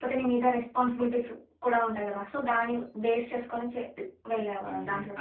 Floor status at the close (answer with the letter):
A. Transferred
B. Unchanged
A